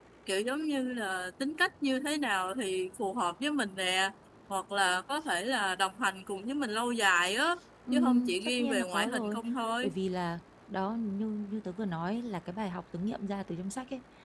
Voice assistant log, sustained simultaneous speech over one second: present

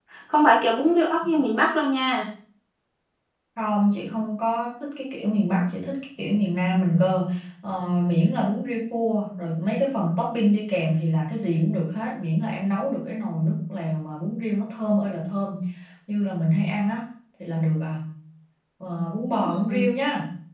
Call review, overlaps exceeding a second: none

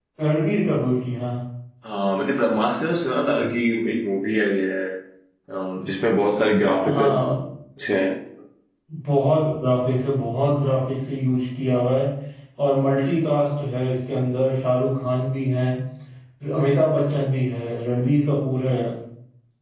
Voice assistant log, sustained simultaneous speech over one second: none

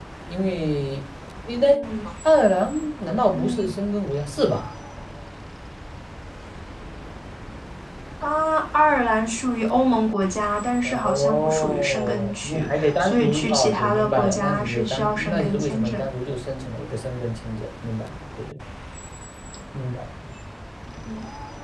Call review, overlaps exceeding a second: present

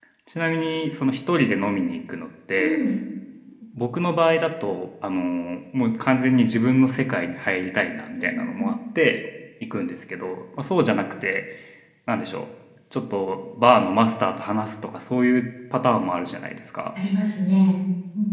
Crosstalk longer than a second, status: none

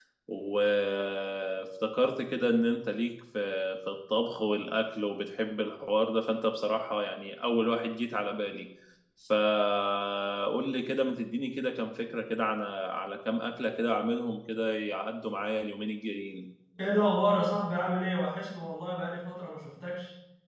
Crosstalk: none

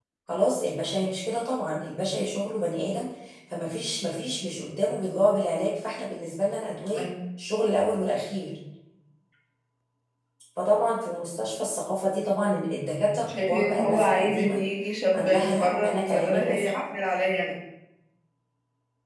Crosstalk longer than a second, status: present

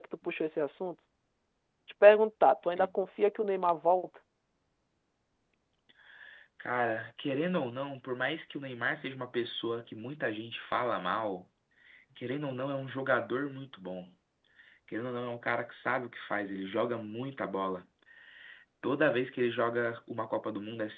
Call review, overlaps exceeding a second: none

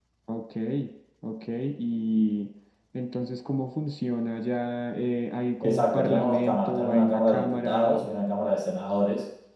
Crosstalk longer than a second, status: present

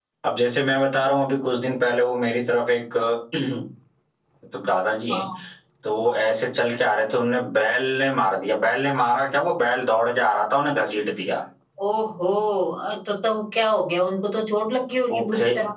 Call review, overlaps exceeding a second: none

